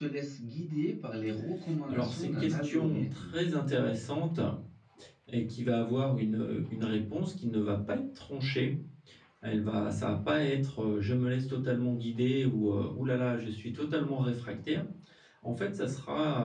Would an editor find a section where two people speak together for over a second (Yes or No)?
Yes